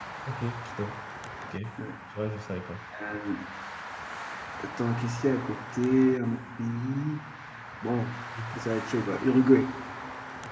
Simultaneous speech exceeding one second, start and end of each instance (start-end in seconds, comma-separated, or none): none